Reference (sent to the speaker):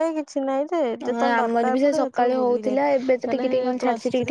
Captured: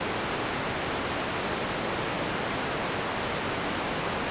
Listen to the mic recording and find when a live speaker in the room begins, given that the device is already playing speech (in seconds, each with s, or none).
none